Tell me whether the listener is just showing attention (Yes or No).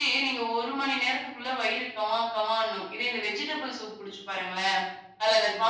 Yes